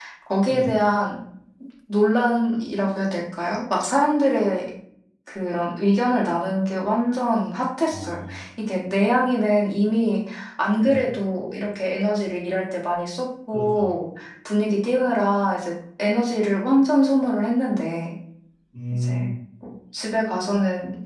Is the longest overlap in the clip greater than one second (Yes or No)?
No